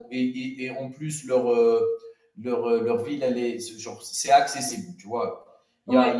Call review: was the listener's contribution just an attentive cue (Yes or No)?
Yes